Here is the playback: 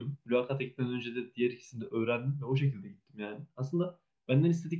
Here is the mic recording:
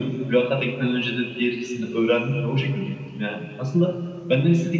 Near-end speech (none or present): none